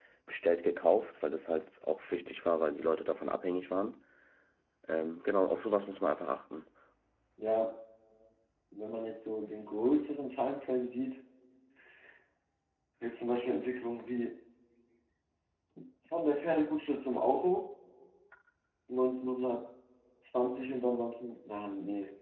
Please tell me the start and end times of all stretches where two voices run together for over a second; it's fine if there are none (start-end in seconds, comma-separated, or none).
none